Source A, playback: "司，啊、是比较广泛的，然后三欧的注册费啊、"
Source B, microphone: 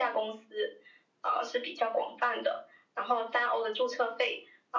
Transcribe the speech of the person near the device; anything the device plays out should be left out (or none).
none